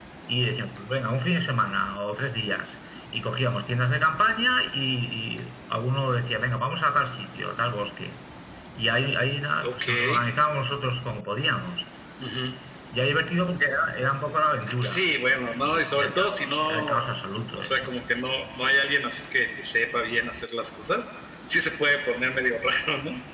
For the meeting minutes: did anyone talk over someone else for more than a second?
Yes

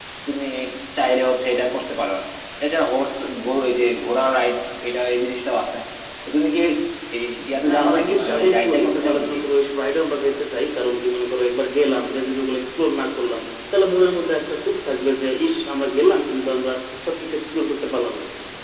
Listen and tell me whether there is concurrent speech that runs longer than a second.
Yes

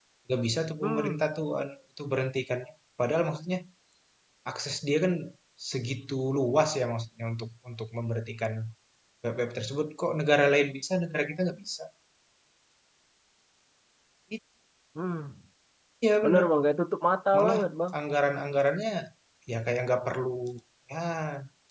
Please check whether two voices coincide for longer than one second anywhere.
No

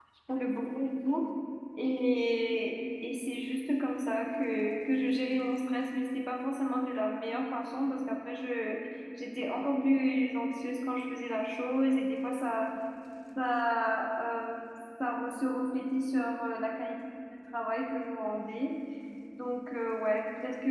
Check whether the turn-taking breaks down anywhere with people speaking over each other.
No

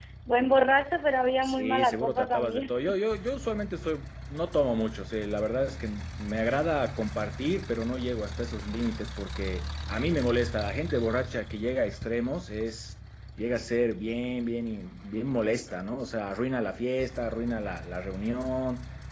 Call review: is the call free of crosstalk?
No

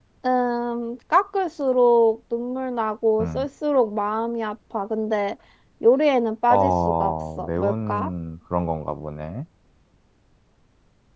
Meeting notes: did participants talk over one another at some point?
Yes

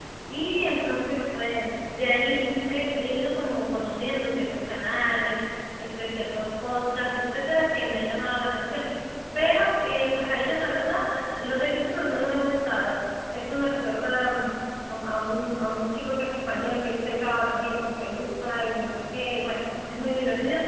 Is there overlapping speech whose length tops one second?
No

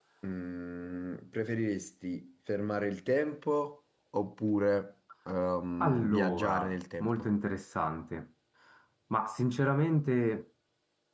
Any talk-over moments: Yes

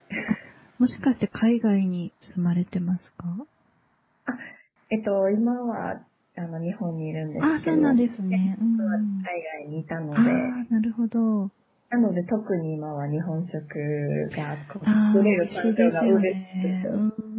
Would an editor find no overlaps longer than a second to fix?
No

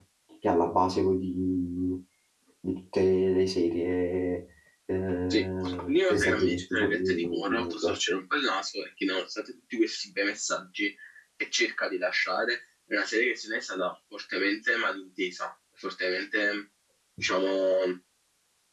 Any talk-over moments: Yes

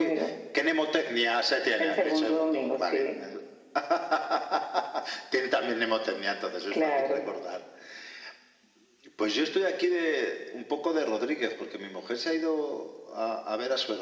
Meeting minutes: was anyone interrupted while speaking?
Yes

